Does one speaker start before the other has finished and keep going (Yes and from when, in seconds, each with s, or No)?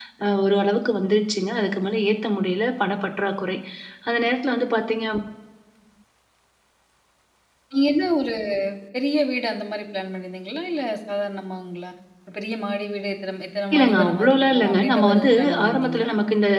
Yes, from 13.7 s